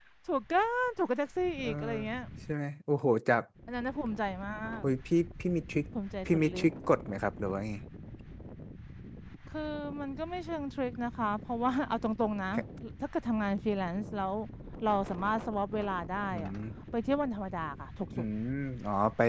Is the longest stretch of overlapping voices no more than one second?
Yes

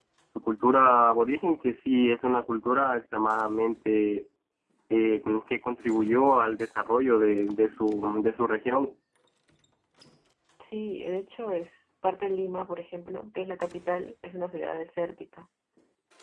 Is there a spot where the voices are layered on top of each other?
No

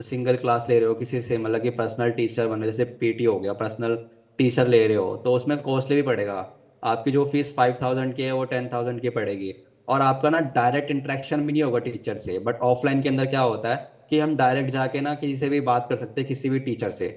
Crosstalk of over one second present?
No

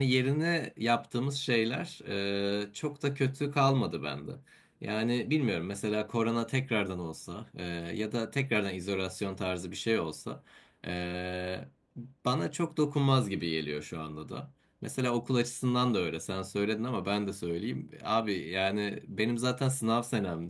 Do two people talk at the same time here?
No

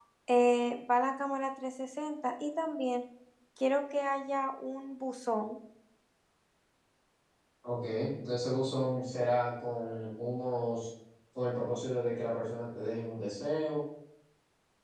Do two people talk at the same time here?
No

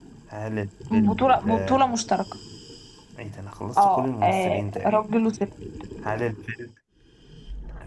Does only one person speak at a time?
No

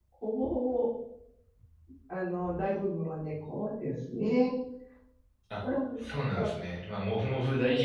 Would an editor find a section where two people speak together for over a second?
No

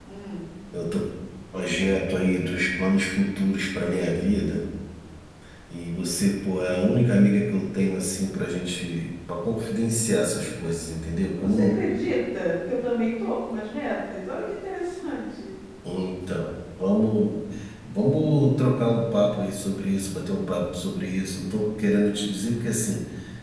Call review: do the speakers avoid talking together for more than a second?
Yes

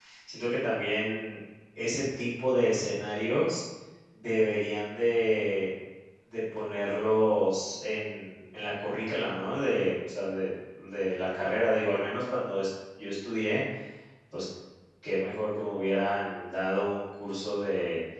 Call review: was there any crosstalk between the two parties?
No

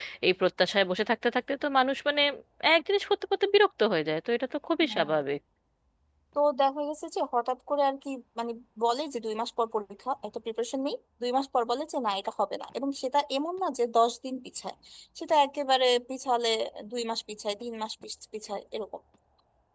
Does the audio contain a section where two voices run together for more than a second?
No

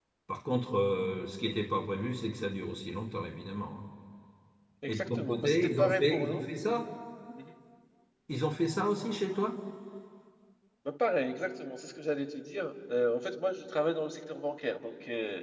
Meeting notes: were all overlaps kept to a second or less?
No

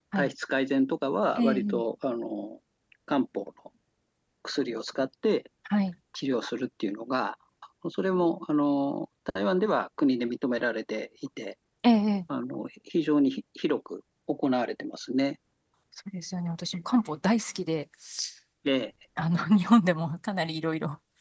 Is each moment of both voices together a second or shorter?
Yes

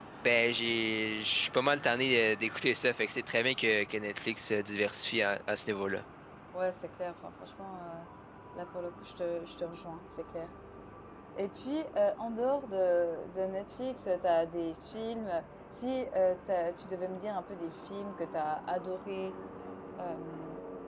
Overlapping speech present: No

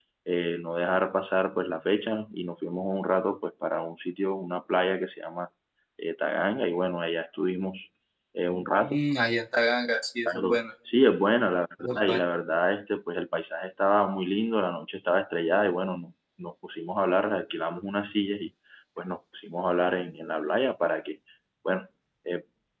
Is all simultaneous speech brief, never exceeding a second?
Yes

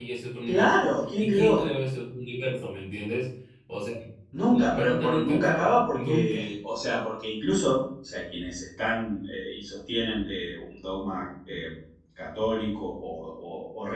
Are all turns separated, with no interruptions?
No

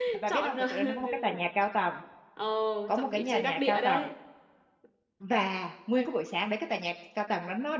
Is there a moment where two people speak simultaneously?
Yes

